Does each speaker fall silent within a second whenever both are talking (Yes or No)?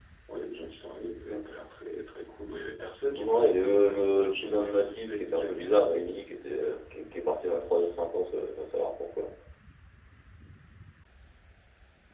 No